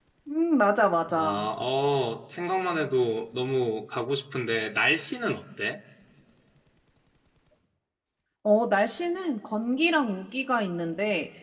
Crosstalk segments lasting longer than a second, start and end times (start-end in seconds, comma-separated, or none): none